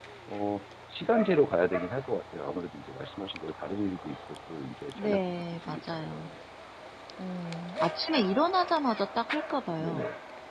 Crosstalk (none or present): present